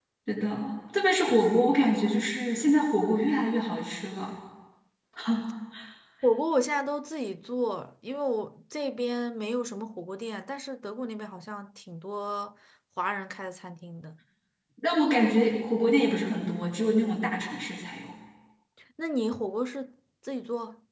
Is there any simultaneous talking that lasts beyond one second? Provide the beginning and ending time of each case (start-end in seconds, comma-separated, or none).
none